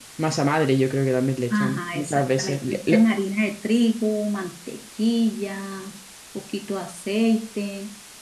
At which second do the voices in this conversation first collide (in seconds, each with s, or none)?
1.5 s